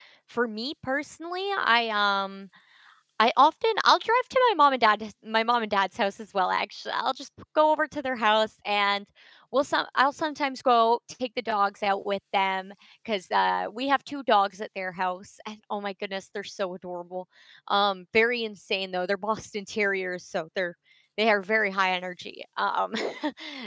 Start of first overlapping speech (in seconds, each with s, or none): none